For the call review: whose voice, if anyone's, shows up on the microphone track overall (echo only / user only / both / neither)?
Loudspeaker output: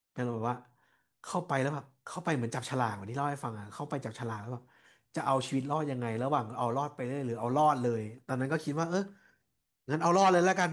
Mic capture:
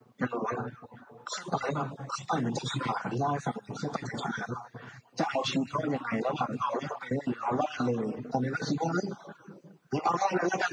echo only